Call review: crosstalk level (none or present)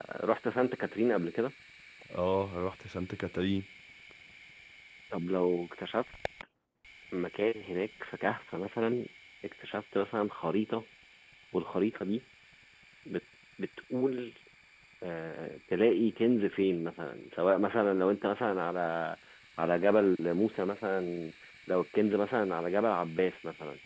none